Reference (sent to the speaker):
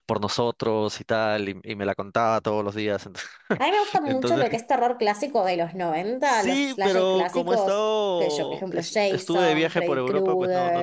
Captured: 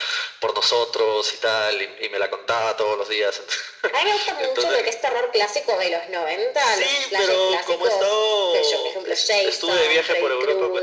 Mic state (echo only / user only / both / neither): echo only